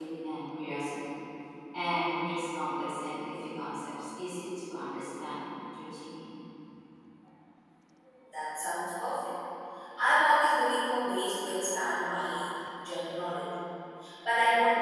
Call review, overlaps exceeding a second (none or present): none